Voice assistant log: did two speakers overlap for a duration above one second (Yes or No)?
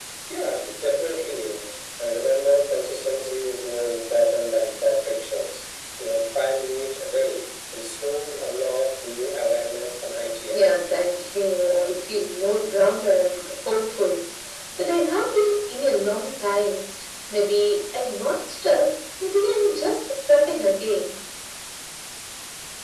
No